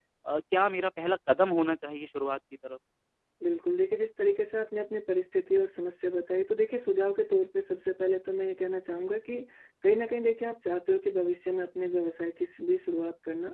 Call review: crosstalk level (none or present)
none